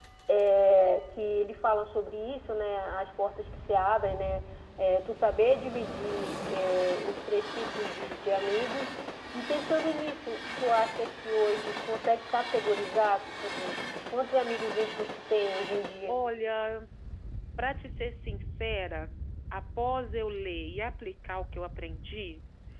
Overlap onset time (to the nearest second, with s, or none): none